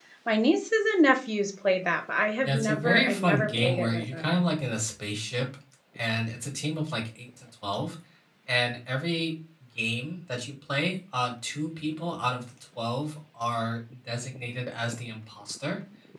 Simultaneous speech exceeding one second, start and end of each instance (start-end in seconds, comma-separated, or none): 2.4-4.4